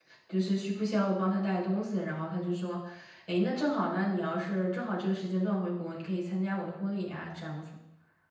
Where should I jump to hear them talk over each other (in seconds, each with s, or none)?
none